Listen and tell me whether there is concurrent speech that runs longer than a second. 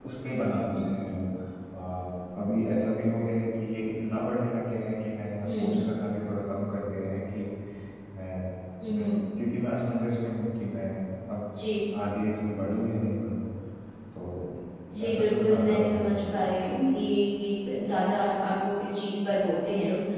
Yes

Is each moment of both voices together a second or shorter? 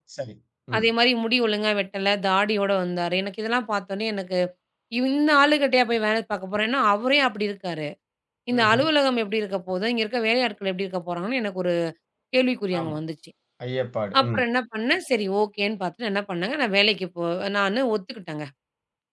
Yes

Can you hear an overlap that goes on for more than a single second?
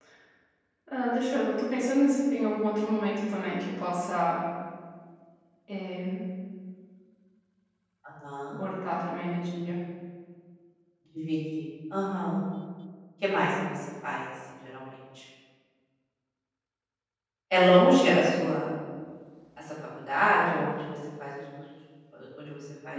No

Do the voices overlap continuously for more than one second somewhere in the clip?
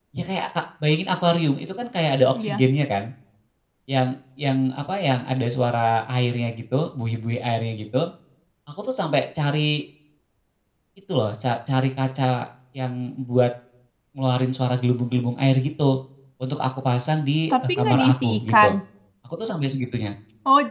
Yes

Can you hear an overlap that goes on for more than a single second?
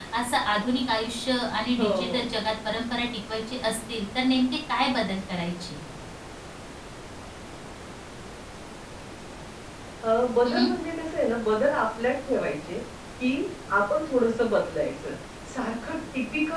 No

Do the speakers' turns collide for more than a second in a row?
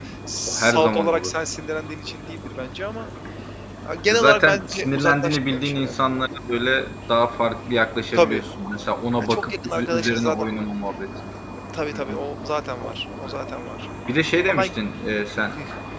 Yes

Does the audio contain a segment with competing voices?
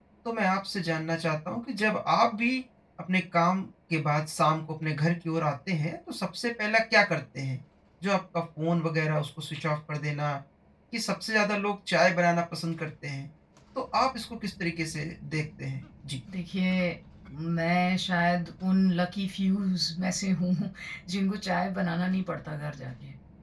No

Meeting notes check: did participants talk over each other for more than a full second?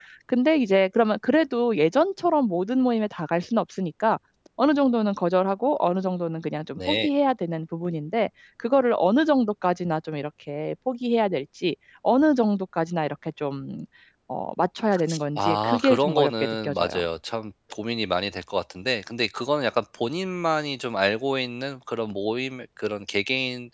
Yes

